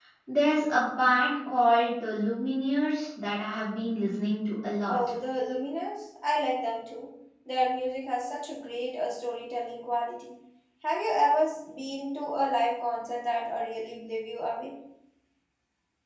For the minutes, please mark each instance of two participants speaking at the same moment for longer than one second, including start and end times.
none

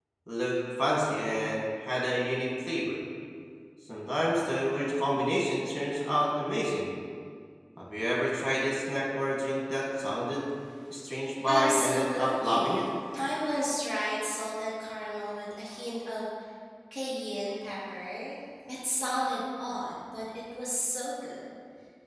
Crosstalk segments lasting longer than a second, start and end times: 11.4-12.8

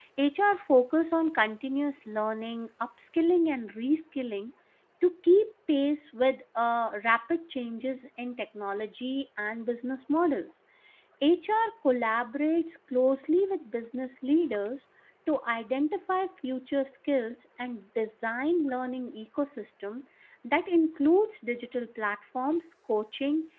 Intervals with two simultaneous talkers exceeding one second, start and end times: none

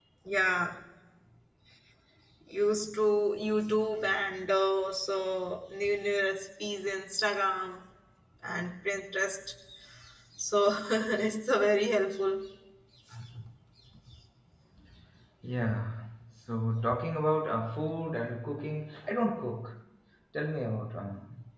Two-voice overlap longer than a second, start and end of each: none

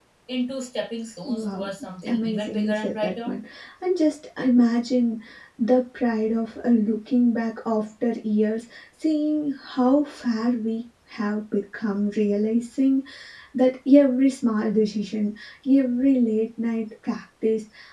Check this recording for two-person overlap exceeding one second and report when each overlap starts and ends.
2.1-3.4

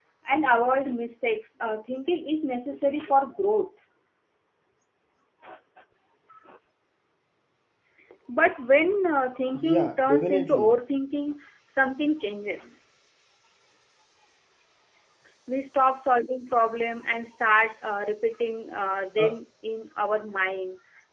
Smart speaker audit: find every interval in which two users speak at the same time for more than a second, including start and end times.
9.5-10.8

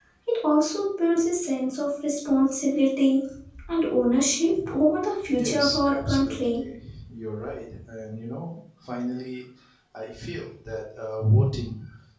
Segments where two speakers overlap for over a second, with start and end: 5.3-6.7

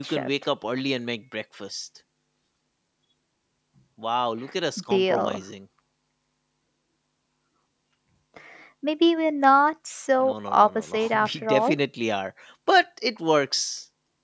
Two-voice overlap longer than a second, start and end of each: 10.2-11.8

